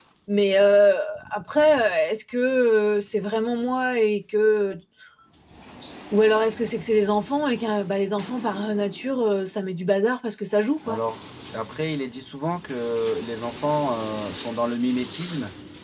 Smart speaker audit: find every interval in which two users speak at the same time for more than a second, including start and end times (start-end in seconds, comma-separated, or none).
none